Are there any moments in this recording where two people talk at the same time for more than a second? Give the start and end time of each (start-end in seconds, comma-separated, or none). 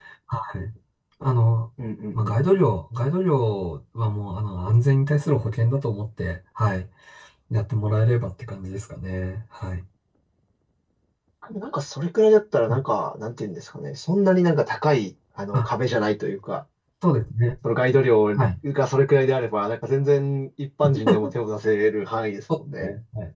none